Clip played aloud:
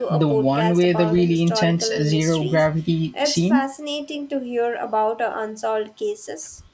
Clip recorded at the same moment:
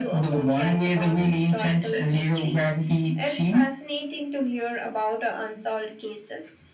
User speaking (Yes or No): No